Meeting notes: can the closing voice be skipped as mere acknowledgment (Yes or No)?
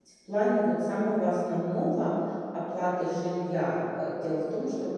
Yes